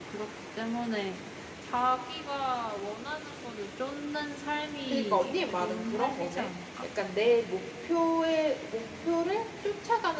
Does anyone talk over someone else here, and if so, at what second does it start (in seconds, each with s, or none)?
4.9 s